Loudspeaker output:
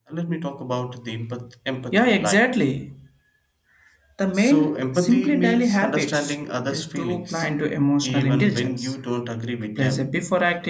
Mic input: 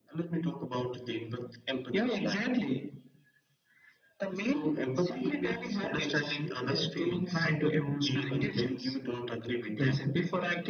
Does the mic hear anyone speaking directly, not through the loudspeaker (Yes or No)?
No